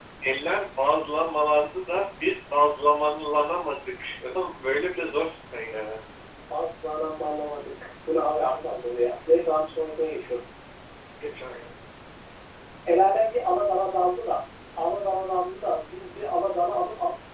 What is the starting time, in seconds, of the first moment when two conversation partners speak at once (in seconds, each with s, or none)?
none